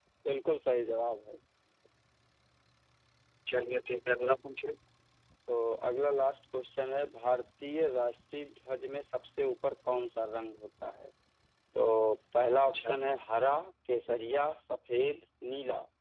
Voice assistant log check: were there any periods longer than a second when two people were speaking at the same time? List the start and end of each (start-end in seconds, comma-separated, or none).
none